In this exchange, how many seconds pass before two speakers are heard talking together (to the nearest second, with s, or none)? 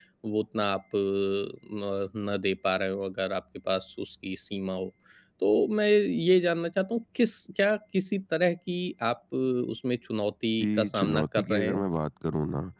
11 s